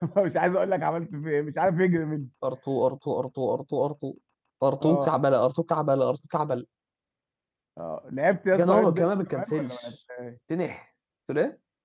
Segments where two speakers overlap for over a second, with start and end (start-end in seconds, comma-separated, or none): 8.6-9.9